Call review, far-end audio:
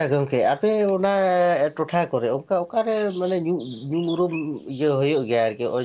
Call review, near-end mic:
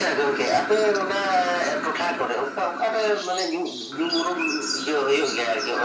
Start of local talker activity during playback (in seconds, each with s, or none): none